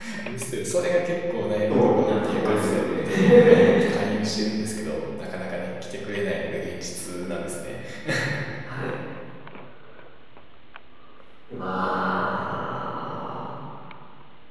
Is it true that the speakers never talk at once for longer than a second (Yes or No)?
No